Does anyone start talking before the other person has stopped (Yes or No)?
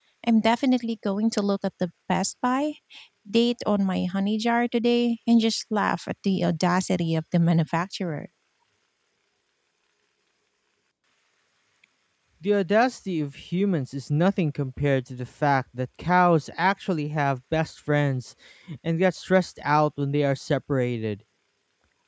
No